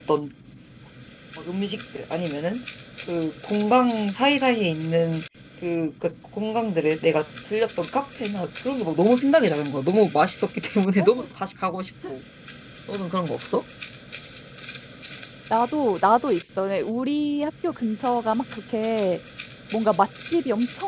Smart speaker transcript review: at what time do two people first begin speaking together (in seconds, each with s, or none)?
none